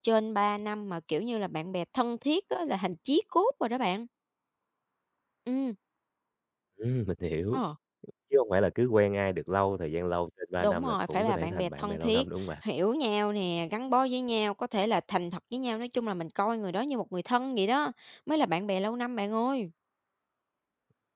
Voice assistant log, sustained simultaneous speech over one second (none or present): present